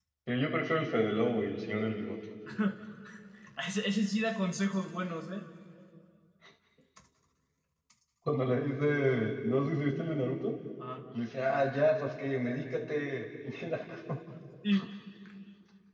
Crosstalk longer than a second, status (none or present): none